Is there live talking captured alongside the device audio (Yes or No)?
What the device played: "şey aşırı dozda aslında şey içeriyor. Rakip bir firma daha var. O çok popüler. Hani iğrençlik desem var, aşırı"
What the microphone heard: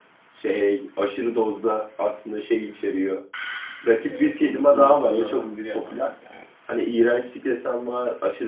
Yes